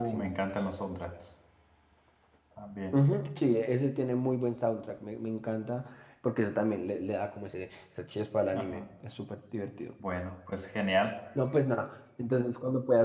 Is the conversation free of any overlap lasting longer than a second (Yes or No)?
Yes